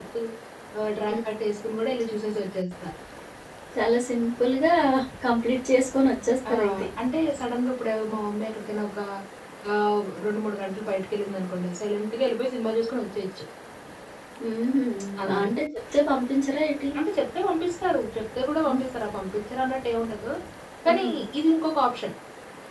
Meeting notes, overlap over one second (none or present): none